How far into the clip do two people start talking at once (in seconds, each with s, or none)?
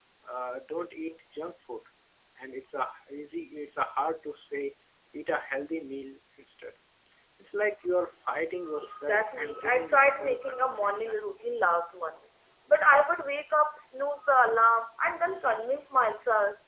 8.7 s